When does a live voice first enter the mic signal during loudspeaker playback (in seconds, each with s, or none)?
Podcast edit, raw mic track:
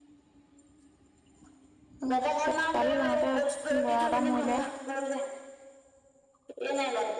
2.0 s